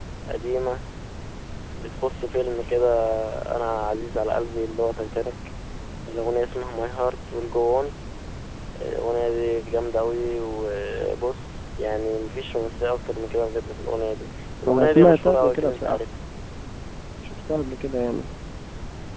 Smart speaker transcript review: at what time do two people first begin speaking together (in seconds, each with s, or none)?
14.7 s